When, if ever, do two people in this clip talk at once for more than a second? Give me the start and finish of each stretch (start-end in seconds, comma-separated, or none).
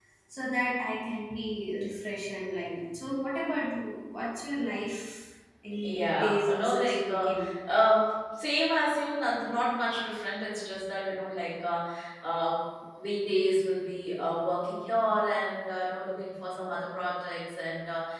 5.8-7.3